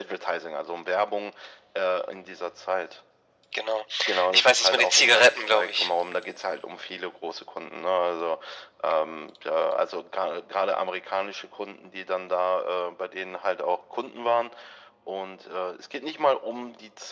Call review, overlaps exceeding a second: present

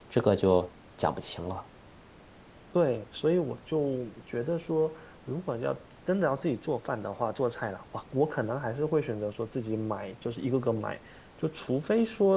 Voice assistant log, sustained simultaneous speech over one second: none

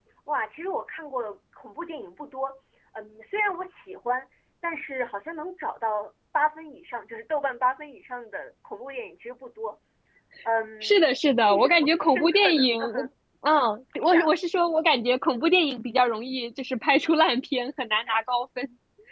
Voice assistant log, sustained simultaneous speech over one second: present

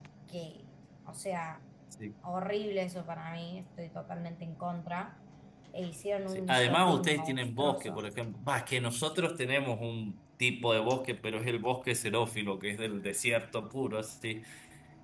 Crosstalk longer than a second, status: present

